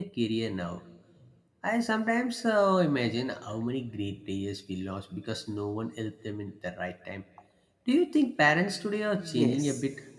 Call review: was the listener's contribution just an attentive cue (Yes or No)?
No